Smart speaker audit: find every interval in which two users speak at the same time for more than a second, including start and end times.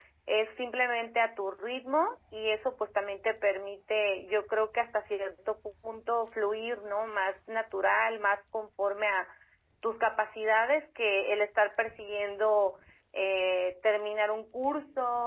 none

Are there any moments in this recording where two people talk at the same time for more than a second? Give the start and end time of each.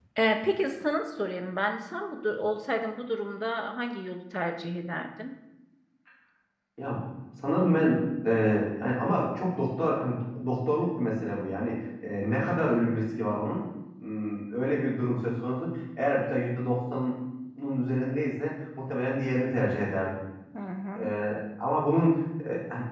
none

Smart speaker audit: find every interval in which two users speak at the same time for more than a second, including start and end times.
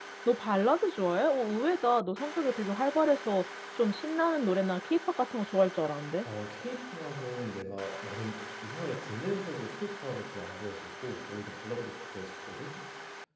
none

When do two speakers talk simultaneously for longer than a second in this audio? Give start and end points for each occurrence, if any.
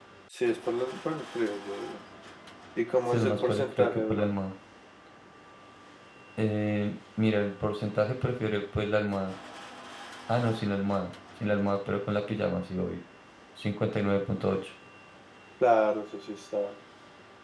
3.0-4.3

